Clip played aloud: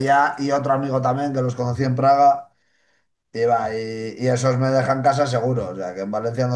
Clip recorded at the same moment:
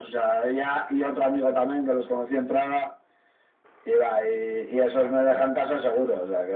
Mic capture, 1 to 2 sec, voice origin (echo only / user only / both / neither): echo only